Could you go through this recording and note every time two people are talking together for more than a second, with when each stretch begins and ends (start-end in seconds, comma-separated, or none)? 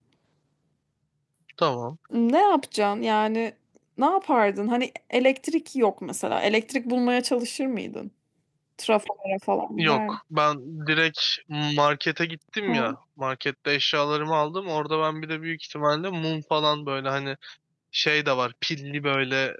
none